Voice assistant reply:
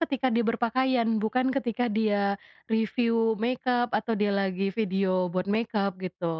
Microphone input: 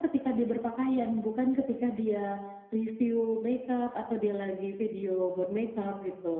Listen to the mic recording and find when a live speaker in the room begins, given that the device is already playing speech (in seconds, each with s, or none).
none